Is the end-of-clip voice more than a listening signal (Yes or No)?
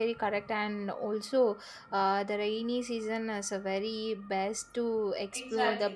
Yes